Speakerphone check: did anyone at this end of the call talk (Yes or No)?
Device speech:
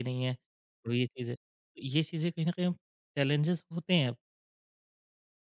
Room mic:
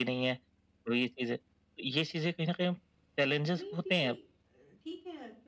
Yes